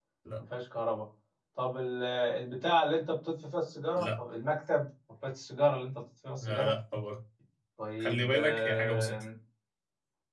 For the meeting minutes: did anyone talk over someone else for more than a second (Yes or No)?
Yes